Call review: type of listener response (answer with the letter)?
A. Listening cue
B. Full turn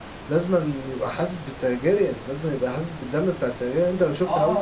B